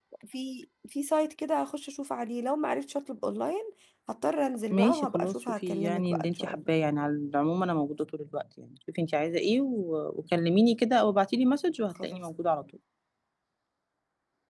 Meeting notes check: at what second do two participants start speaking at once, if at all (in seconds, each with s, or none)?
4.7 s